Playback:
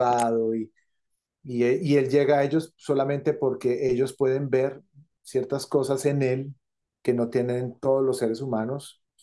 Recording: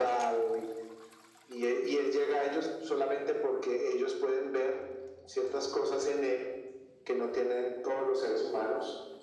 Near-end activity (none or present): none